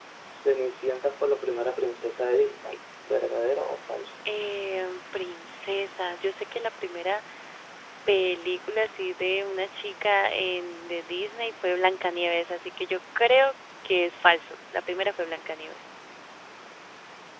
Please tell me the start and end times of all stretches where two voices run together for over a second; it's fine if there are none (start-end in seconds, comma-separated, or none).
none